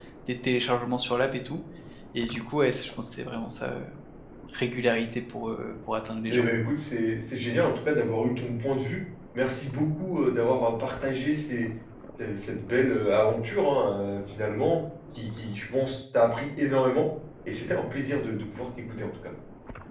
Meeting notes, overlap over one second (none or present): none